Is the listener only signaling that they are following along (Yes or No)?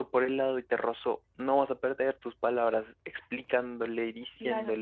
No